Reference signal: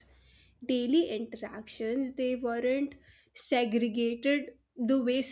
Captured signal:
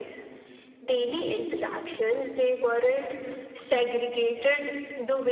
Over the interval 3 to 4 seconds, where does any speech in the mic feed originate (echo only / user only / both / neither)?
echo only